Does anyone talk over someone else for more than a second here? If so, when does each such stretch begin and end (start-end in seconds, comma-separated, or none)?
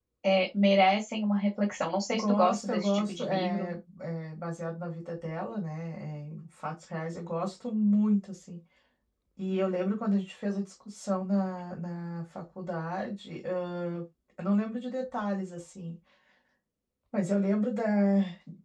2.1-3.7